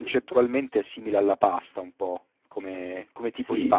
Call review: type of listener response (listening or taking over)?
taking over